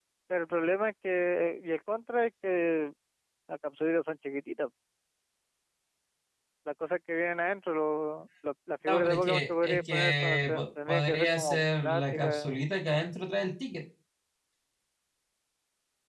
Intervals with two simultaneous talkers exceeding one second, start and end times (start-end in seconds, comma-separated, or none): 8.9-12.6